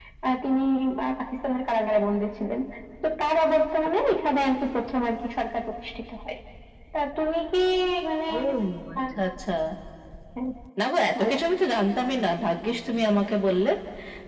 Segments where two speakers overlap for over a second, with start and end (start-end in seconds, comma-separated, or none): none